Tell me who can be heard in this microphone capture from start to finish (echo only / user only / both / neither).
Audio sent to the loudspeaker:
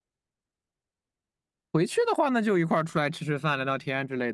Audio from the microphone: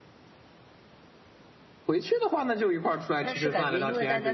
both